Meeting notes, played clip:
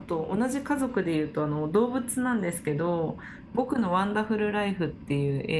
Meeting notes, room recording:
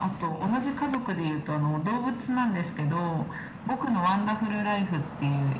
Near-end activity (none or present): none